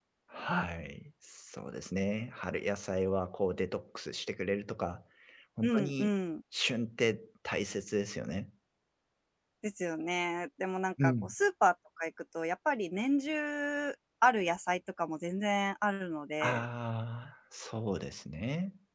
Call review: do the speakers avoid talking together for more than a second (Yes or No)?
Yes